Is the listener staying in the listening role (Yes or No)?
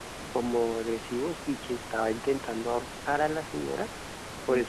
Yes